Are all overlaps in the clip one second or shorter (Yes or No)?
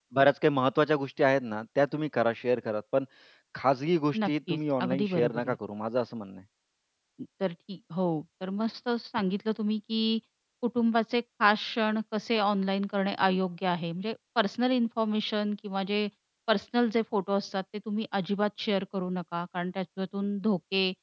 No